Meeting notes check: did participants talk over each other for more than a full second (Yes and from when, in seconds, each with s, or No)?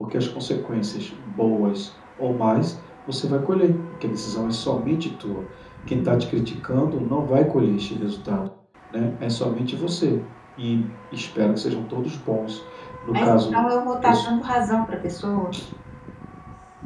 No